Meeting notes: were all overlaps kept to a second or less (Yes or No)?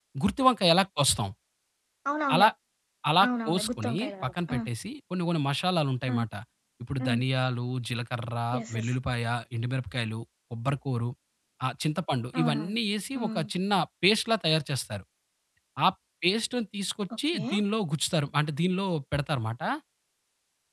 No